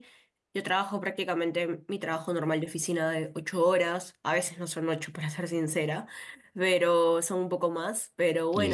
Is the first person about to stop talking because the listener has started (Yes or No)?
No